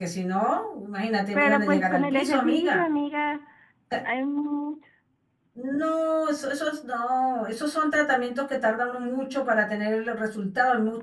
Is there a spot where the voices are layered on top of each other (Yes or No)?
Yes